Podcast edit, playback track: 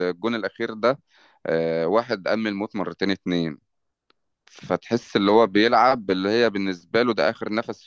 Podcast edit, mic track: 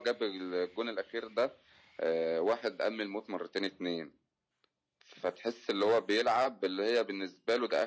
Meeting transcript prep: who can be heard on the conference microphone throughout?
echo only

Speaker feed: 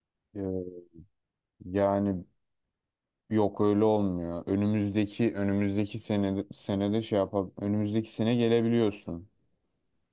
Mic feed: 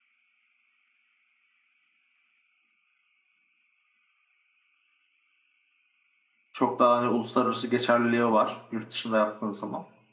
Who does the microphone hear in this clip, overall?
user only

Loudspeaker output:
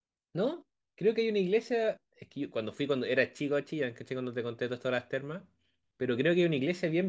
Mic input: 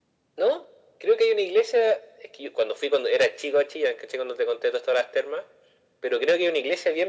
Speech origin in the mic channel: echo only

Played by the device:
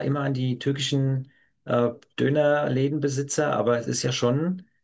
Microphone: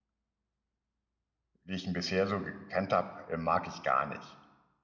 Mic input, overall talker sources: user only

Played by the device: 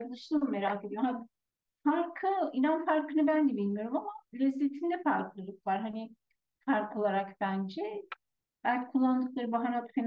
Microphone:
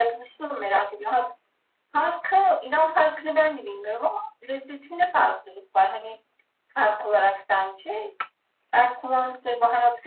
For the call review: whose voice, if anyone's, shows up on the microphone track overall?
echo only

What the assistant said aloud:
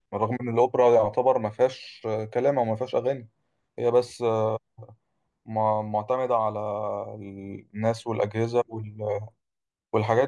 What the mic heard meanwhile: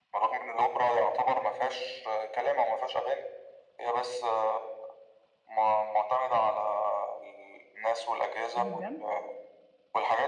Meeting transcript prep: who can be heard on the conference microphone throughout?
both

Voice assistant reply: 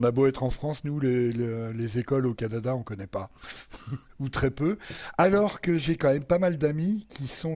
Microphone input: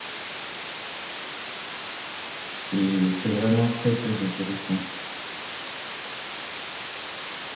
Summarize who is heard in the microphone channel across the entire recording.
user only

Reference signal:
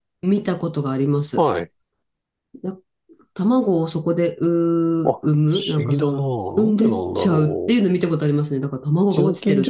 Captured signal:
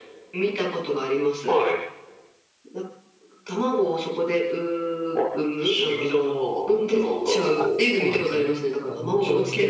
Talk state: both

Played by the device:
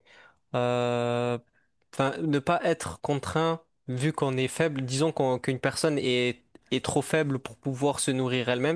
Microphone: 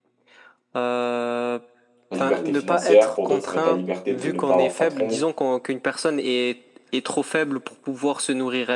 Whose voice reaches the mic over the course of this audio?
both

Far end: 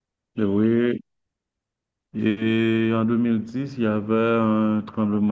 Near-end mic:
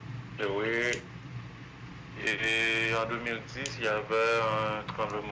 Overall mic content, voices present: echo only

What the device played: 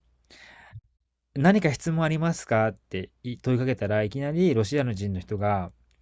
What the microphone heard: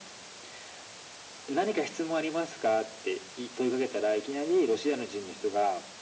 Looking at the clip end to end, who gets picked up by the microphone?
echo only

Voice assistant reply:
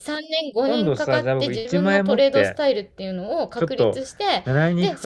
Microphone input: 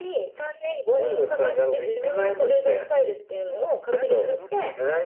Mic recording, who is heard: both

